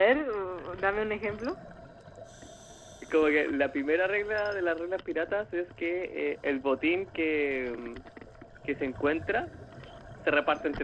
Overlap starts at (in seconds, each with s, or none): none